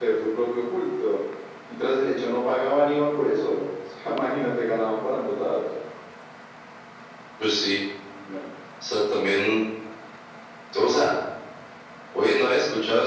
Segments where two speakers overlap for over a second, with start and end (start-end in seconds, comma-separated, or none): none